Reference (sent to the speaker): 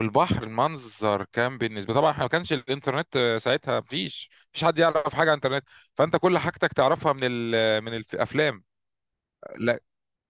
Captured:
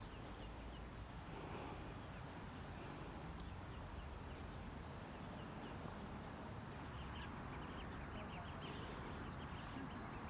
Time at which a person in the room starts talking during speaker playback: none

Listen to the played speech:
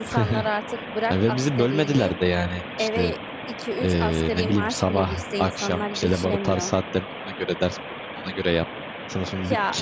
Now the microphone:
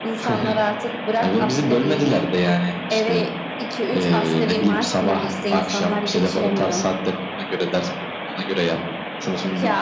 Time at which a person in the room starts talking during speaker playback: none

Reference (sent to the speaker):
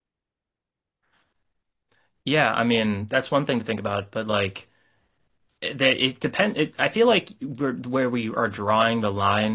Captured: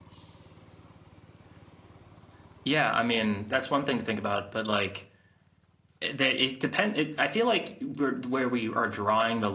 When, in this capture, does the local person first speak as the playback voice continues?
none

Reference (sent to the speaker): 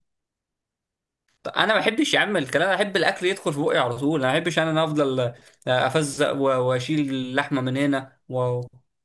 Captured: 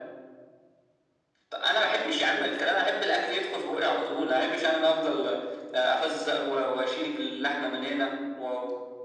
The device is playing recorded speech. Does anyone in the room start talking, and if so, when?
none

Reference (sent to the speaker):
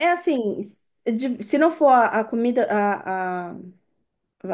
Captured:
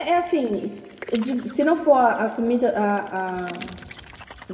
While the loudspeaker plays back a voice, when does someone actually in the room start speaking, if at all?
none

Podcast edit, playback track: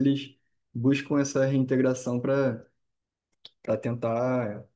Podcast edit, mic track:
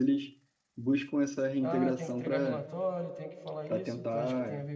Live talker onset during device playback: 1.6 s

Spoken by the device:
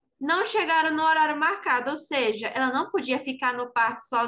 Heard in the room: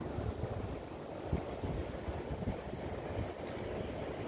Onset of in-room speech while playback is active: none

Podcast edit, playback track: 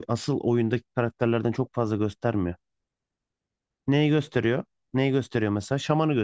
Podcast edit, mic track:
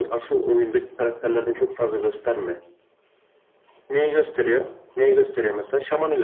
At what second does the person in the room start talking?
none

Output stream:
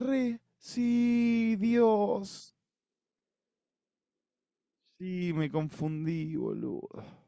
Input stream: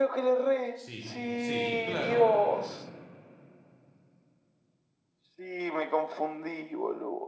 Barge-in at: 0.7 s

